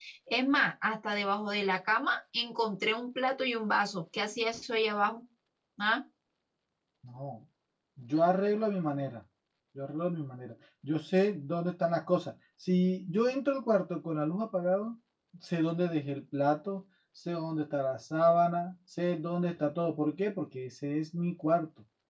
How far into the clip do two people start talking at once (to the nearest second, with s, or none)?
none